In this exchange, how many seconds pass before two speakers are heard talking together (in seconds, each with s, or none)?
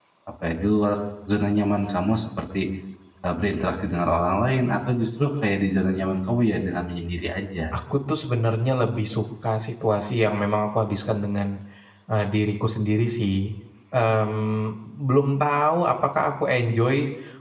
none